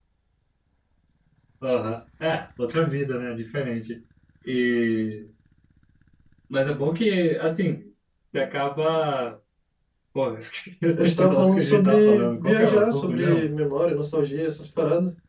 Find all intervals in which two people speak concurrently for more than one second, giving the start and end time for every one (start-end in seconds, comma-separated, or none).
11.0-13.4